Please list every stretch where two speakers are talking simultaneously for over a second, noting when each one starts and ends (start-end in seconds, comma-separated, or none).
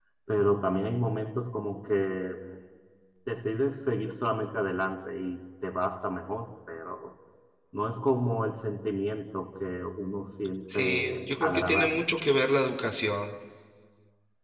10.7-12.0